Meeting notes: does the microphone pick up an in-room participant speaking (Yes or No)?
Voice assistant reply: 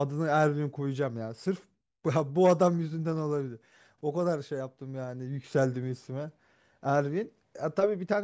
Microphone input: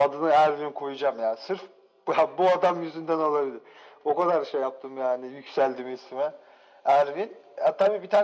No